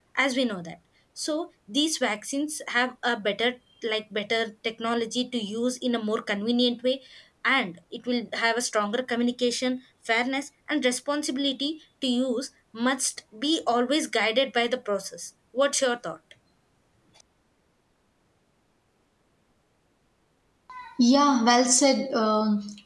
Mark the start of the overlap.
none

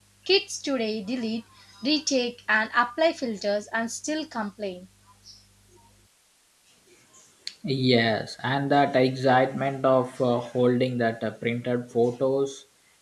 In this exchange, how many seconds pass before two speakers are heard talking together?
none

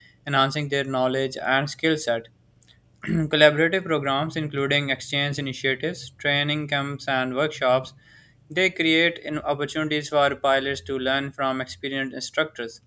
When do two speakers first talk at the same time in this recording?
none

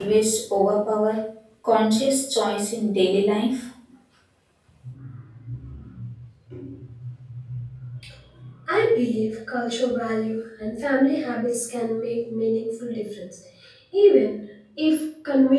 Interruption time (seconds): none

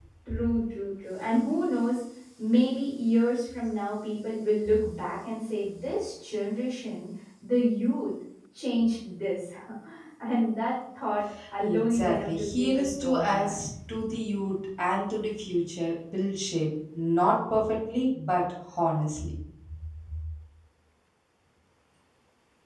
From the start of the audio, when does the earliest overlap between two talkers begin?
11.6 s

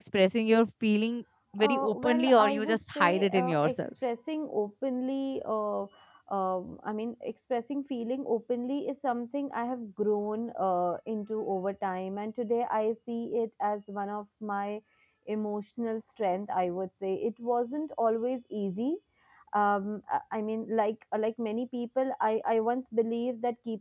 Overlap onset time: 1.6 s

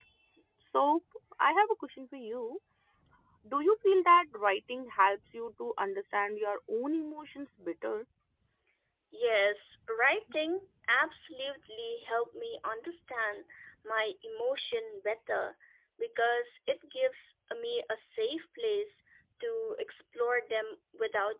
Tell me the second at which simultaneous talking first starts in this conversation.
none

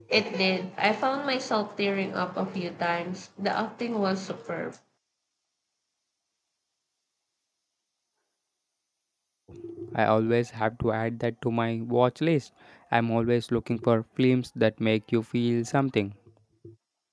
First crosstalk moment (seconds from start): none

